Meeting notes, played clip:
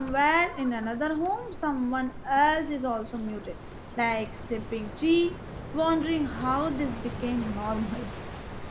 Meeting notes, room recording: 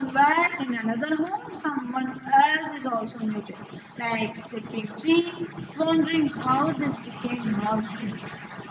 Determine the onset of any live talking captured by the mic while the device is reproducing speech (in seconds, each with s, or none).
none